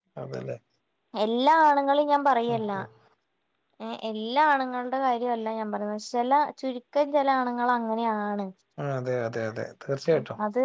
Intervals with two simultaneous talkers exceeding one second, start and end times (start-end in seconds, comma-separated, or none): none